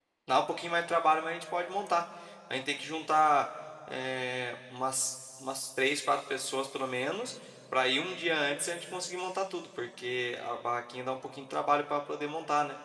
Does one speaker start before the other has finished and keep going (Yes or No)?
No